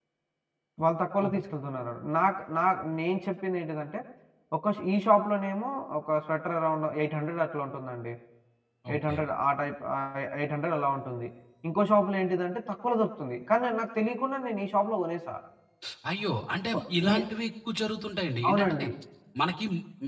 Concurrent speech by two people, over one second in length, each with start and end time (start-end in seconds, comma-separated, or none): none